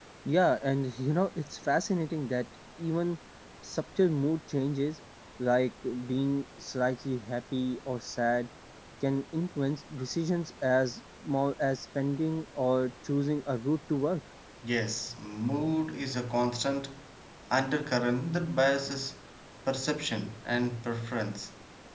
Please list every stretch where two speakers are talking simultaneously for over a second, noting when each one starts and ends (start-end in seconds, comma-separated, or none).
none